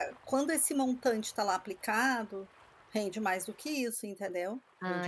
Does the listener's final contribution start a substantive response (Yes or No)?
No